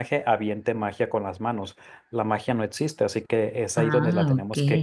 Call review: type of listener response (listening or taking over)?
listening